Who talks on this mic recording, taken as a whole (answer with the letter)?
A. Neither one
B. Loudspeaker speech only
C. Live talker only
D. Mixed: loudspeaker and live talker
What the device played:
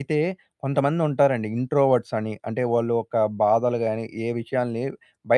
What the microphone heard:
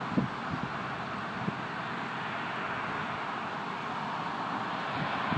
A